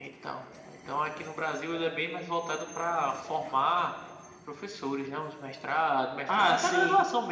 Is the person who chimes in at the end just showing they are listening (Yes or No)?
Yes